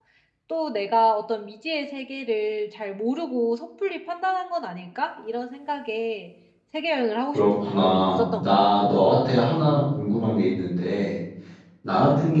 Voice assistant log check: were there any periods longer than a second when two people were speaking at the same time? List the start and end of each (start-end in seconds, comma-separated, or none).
7.3-8.8